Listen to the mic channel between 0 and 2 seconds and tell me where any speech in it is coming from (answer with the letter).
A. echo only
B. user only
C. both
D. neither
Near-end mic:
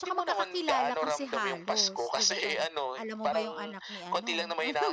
C